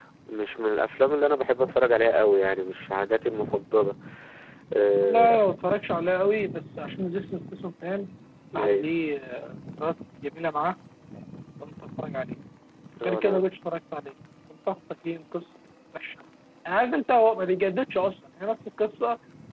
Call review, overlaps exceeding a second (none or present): none